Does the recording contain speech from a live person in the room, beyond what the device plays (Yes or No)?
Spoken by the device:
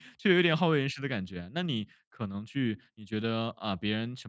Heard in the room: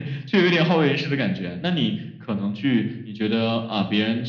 No